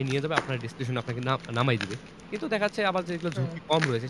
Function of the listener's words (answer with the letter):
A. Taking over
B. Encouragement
B